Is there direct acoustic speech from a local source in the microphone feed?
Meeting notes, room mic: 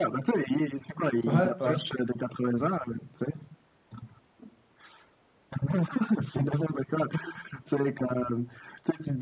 Yes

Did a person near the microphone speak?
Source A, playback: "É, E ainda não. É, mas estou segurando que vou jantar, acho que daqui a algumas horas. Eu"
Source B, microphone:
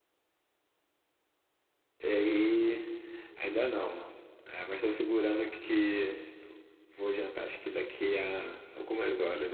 No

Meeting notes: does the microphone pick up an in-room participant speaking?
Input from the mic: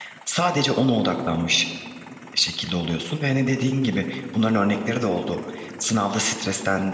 Yes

